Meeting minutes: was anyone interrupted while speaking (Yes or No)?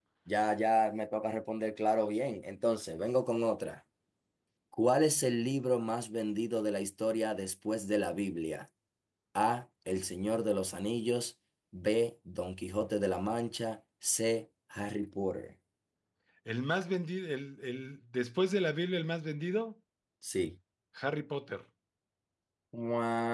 No